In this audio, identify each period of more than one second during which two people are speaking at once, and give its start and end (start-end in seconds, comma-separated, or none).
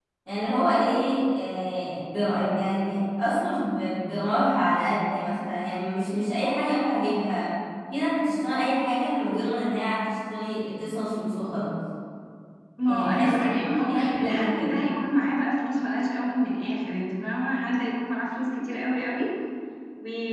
12.9-14.8